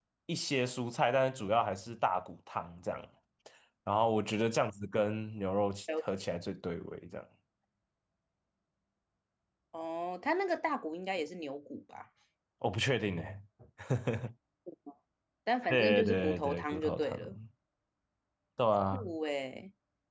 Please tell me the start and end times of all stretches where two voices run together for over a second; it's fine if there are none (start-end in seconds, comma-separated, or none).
15.7-17.2